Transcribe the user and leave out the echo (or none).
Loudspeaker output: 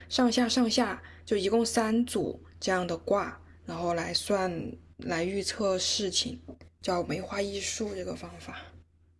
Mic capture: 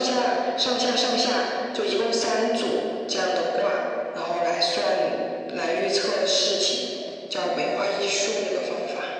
none